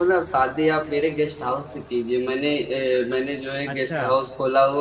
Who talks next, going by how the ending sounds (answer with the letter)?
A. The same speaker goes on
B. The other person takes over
A